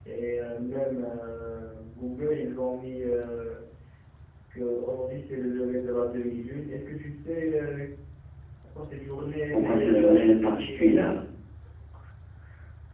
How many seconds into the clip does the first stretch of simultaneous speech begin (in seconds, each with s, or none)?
9.5 s